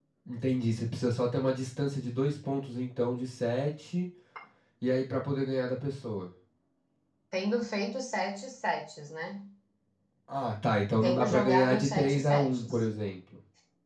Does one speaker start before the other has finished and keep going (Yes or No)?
Yes